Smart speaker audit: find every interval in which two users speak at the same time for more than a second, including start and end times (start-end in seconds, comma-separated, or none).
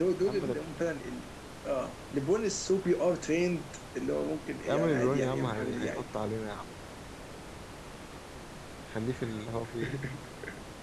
4.7-6.0